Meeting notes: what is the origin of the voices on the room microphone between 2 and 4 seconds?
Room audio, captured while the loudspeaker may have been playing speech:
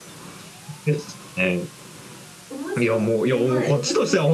both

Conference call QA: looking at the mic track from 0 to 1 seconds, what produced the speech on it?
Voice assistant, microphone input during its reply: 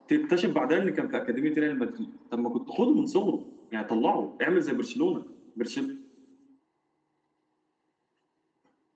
echo only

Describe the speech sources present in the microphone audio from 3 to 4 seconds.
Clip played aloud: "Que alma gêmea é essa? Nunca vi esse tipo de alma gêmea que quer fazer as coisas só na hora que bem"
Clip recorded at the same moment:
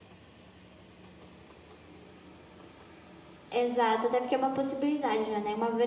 user only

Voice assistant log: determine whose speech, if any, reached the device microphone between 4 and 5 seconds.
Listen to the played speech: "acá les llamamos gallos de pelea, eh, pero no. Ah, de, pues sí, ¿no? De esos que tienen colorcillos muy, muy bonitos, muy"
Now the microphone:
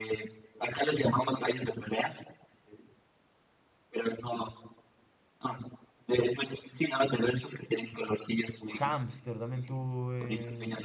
echo only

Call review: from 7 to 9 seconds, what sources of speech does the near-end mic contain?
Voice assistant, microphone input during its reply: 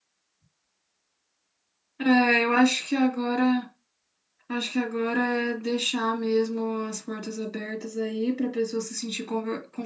user only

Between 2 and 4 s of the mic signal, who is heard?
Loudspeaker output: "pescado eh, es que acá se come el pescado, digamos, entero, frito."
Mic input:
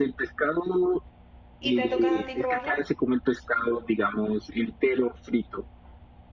both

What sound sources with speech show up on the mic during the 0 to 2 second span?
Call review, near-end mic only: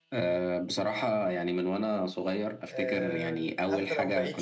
echo only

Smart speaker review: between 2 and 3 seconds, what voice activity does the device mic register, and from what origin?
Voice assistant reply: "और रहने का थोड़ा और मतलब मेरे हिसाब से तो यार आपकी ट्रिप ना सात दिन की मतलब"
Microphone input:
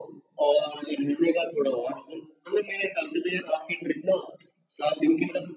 echo only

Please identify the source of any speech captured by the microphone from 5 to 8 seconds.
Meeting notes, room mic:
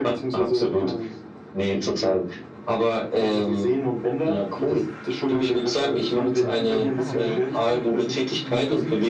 both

